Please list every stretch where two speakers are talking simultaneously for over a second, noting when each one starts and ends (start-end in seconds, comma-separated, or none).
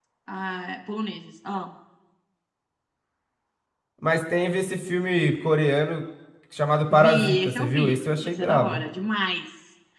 6.9-8.8